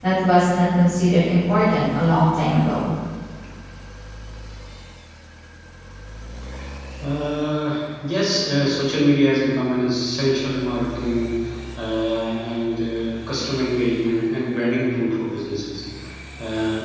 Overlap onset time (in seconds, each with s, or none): none